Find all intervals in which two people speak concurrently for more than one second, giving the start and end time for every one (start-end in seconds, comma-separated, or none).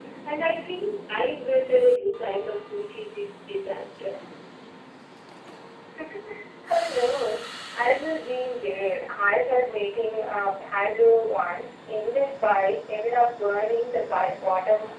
none